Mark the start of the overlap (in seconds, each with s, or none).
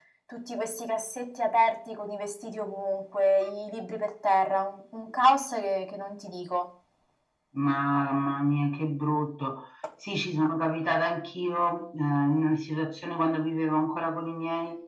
none